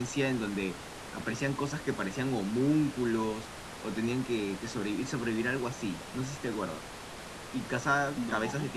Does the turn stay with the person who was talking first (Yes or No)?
Yes